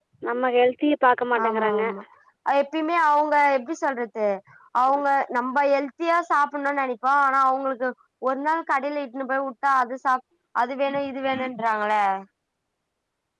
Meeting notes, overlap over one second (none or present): none